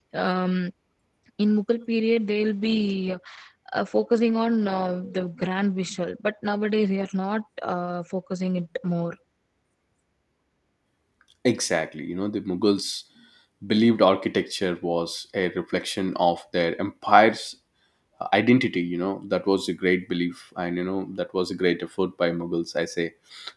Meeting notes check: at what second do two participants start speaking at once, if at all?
none

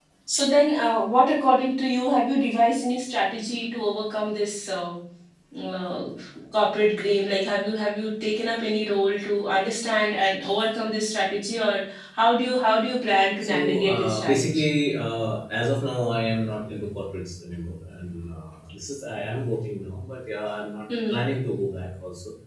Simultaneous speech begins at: 13.4 s

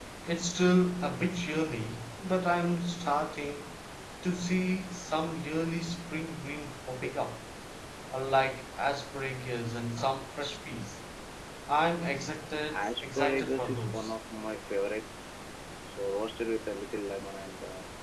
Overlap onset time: 12.7 s

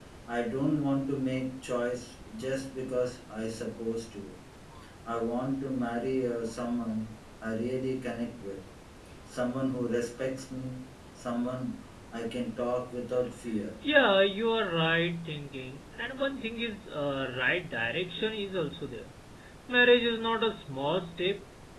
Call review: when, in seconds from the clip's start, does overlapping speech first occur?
none

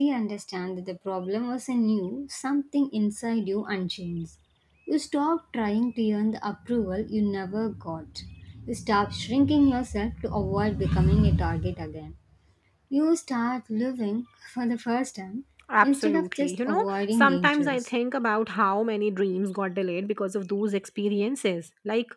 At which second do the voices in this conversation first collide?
15.8 s

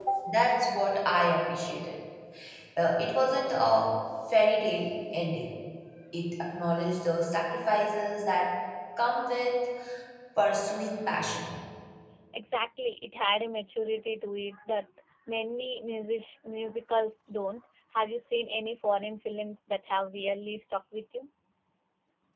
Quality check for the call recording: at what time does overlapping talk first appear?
none

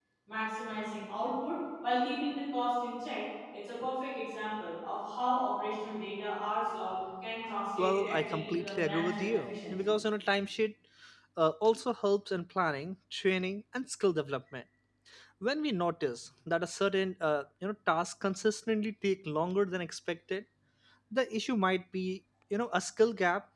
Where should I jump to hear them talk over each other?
7.8 s

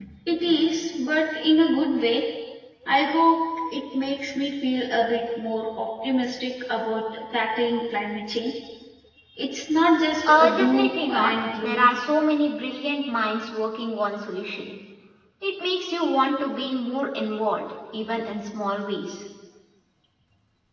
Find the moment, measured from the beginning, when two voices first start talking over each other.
10.3 s

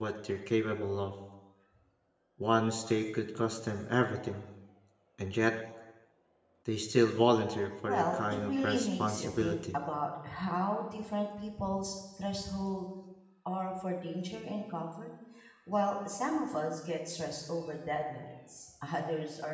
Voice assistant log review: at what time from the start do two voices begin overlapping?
7.8 s

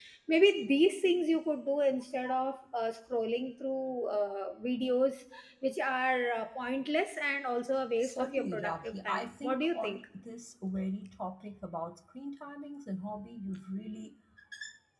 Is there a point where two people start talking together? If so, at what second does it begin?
8.0 s

